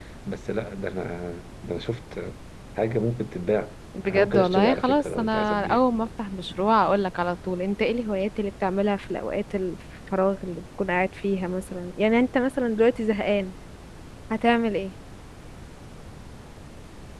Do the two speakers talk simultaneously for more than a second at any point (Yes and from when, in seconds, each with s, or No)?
Yes, from 3.9 s